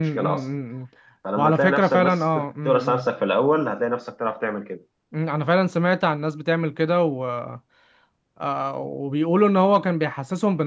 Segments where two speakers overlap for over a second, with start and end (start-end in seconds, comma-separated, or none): 1.4-3.1